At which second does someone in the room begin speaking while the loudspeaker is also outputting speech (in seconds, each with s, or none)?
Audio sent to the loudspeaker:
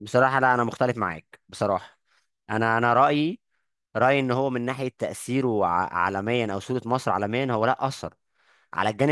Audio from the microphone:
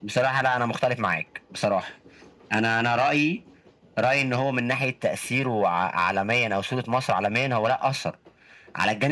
none